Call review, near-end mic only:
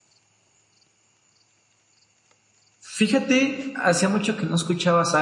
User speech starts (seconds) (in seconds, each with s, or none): 2.8 s